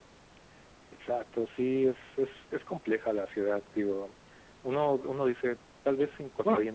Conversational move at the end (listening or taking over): listening